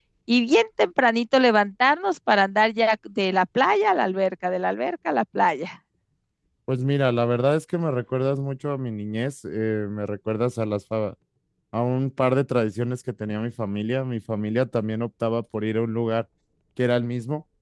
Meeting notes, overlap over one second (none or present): none